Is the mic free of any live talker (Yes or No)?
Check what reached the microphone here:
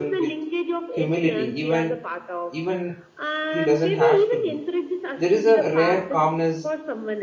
No